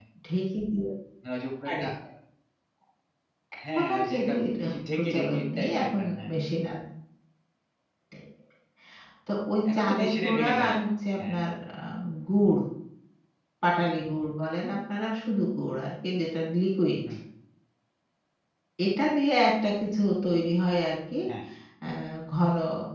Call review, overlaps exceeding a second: present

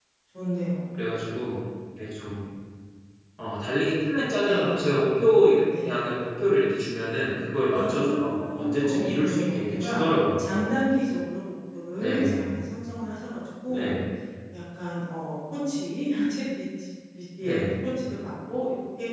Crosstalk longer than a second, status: present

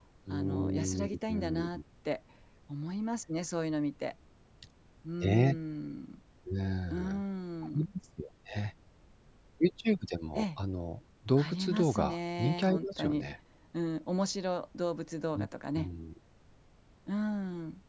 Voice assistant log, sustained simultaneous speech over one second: present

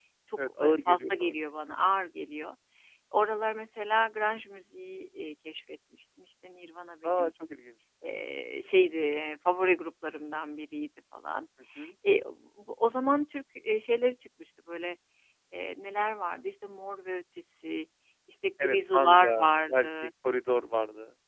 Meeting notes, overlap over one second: present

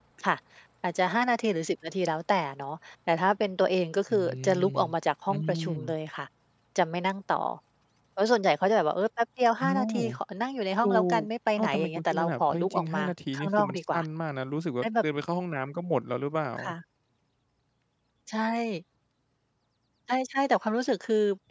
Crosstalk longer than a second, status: present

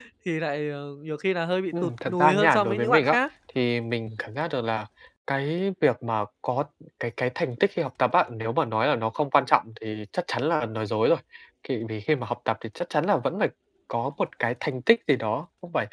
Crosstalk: present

